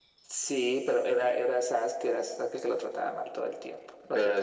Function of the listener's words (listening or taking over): taking over